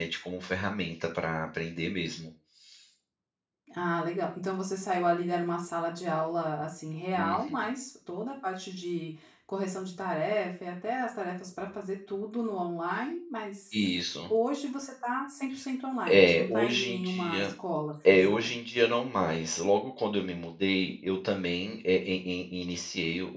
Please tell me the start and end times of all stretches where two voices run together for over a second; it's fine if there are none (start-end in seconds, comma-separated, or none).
16.1-17.5